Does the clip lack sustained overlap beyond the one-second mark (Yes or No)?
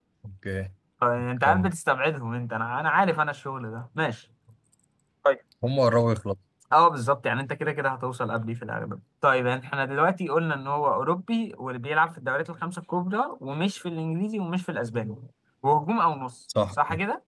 Yes